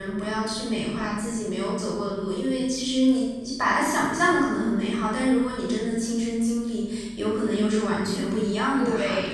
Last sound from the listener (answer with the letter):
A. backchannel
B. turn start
B